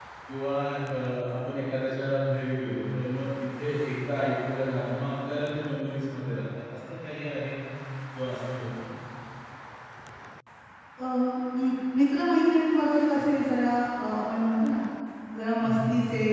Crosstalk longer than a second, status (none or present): none